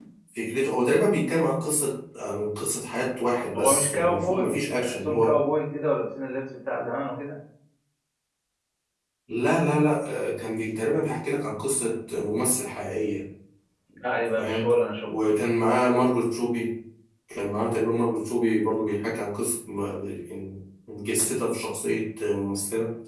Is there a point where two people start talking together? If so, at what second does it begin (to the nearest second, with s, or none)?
4 s